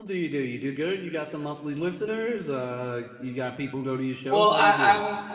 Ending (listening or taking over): taking over